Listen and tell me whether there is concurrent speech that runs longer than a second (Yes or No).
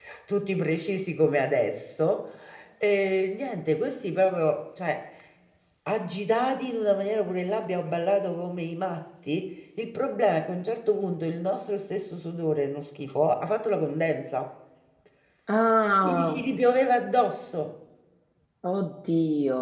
No